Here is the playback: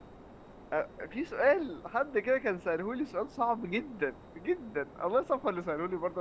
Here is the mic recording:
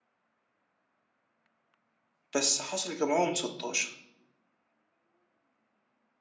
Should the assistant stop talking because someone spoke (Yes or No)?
Yes